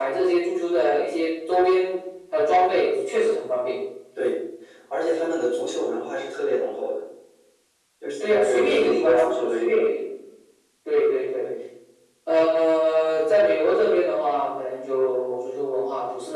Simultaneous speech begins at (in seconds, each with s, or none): 8.2 s